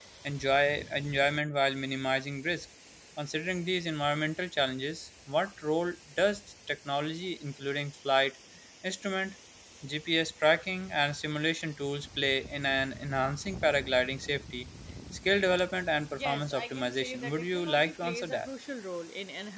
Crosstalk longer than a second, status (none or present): present